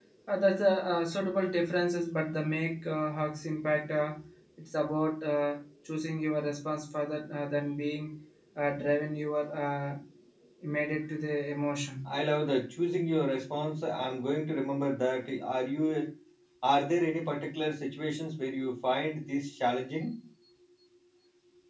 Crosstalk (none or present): none